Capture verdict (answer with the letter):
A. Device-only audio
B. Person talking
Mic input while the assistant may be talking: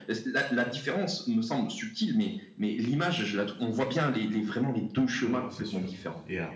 B